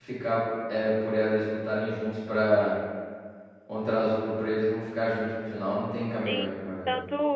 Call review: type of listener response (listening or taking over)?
taking over